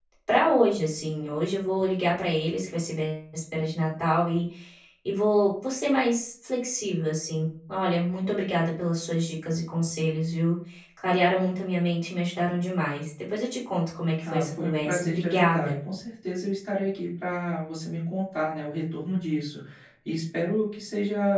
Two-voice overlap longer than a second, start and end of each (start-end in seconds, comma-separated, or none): 14.2-15.7